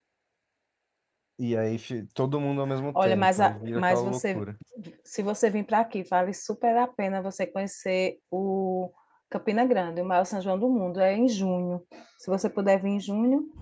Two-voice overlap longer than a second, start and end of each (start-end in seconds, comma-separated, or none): 3.0-4.4